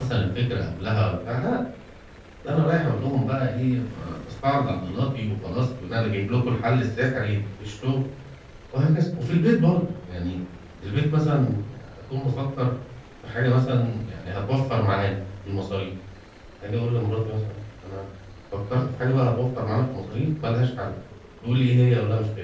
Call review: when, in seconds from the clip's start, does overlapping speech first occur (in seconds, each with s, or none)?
none